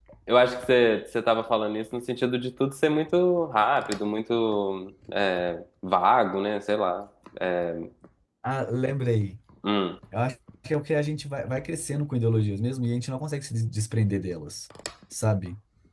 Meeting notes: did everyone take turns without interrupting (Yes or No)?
Yes